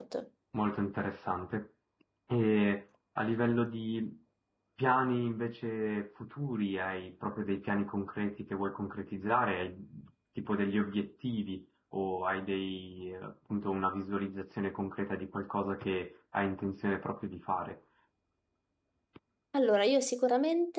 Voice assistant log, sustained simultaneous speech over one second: none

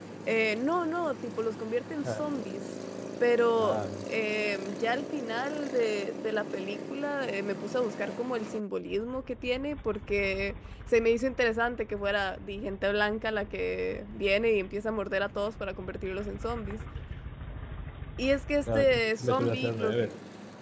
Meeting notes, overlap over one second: present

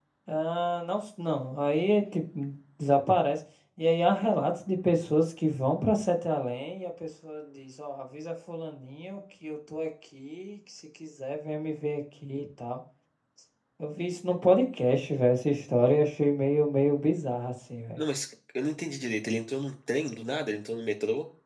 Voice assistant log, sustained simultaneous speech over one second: none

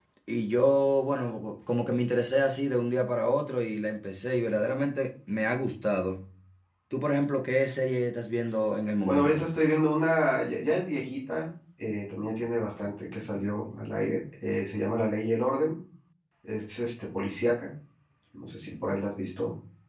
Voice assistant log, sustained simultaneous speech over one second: none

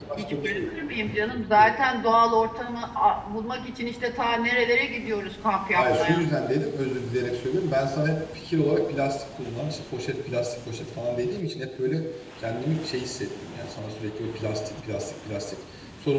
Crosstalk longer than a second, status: none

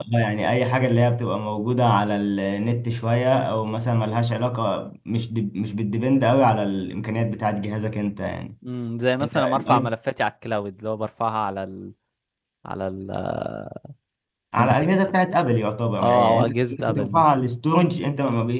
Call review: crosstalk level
present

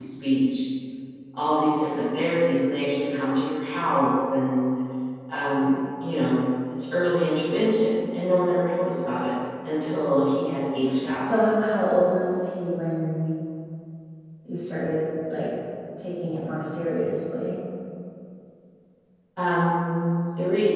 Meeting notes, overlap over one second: none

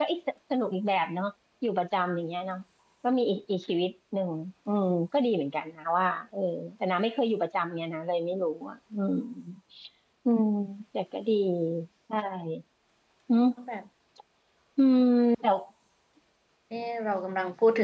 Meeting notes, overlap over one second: none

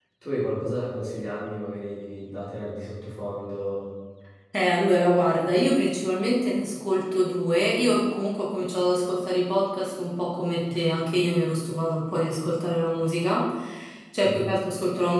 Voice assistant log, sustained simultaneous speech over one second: none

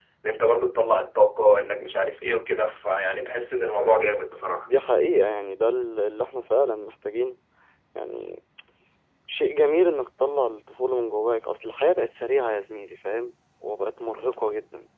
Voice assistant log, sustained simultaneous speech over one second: none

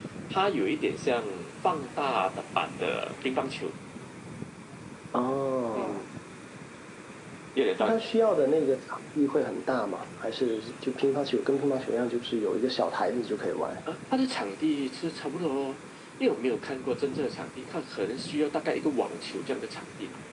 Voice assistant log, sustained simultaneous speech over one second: none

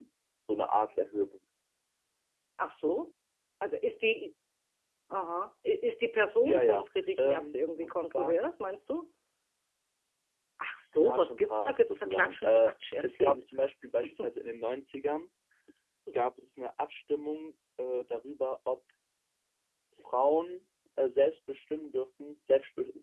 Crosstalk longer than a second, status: present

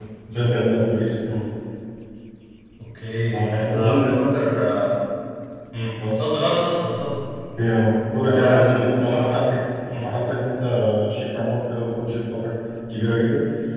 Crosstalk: present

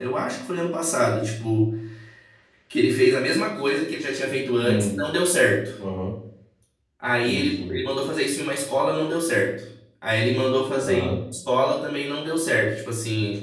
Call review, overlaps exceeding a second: none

